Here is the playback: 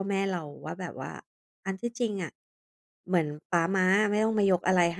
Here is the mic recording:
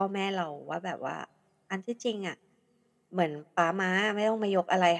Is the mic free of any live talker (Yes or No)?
Yes